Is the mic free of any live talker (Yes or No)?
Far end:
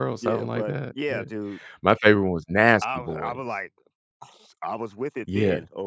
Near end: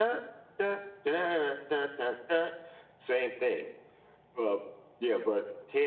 No